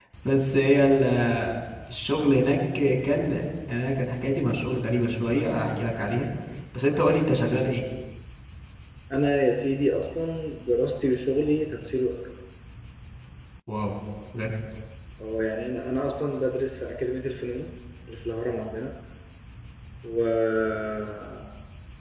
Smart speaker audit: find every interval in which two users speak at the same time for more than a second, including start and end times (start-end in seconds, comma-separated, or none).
none